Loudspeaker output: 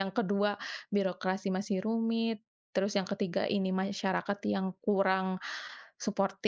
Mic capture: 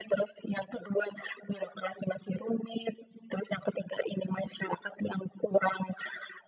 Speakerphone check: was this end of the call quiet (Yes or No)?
Yes